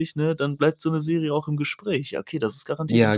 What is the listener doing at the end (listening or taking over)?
taking over